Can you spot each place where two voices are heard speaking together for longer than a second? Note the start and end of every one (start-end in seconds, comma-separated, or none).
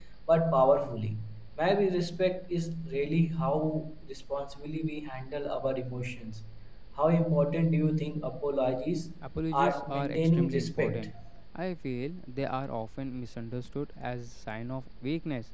9.5-11.1